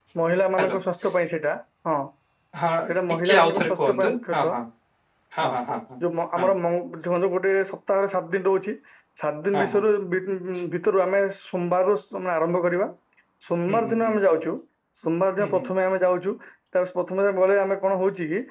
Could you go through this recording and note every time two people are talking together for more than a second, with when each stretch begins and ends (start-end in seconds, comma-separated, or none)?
3.2-4.5